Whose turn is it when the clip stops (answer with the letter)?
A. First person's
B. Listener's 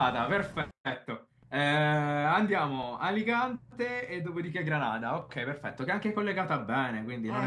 B